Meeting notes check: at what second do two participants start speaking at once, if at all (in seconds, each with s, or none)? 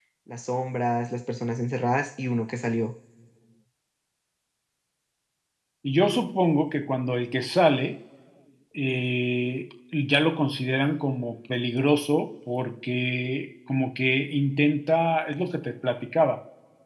none